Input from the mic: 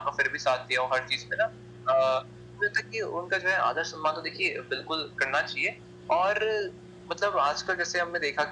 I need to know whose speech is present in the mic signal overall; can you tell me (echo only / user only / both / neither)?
echo only